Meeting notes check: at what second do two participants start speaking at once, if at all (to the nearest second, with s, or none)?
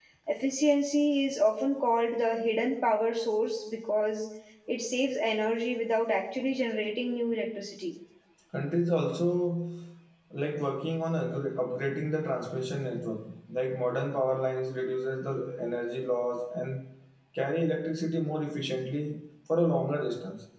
none